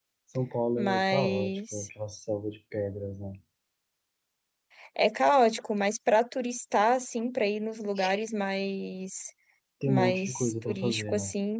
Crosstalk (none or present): present